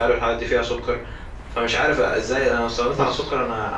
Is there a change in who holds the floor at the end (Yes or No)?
No